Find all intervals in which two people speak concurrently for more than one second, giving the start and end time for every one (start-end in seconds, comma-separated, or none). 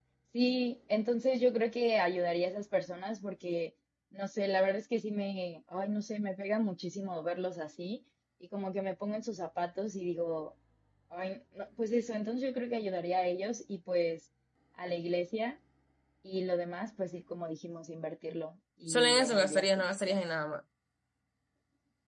18.9-20.2